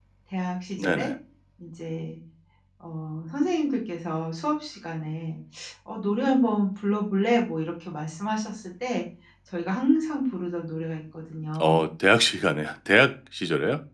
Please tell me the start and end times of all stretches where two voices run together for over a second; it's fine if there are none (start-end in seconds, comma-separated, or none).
none